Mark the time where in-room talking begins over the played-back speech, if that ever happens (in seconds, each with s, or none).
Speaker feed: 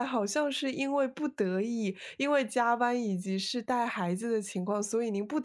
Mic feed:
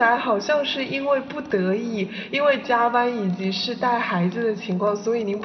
none